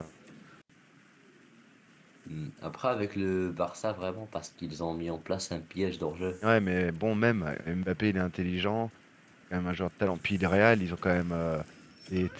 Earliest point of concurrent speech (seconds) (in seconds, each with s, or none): none